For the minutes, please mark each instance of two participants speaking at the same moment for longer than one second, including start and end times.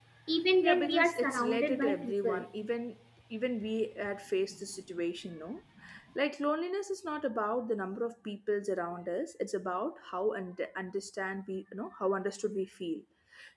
0.6-2.5

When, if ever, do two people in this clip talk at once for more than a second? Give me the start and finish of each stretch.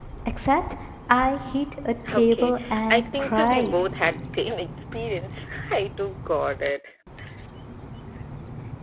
2.1-3.8

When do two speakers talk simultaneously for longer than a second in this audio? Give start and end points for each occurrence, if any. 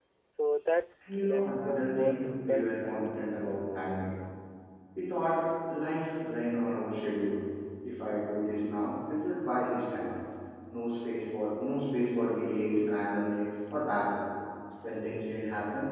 1.1-3.1

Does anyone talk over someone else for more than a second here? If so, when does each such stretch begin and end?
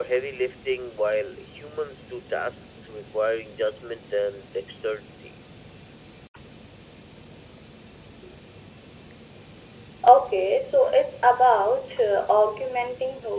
none

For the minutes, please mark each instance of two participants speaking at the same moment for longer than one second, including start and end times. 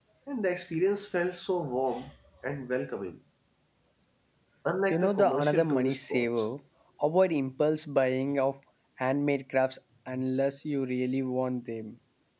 4.9-6.3

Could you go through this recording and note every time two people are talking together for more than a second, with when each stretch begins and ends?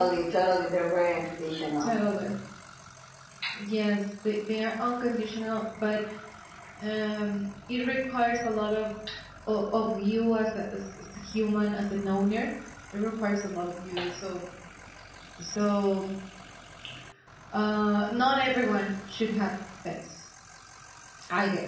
none

